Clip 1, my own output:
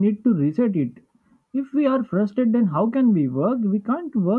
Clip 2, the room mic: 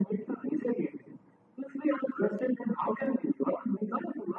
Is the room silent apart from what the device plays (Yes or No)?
Yes